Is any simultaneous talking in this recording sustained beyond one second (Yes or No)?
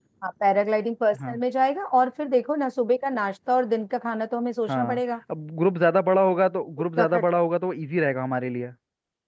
No